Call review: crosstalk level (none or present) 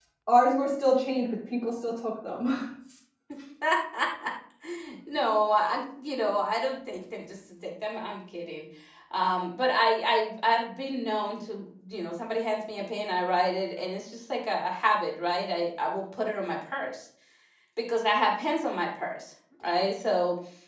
none